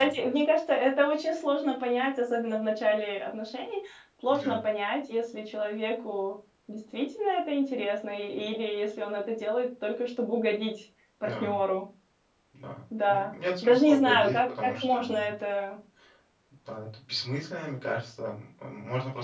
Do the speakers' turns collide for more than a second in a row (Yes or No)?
Yes